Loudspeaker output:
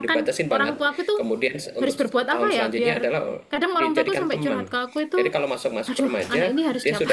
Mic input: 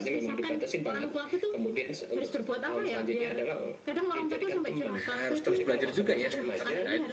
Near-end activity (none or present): present